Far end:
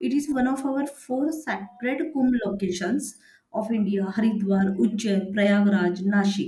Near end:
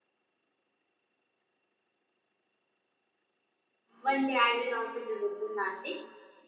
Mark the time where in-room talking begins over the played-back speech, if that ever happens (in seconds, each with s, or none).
4.0 s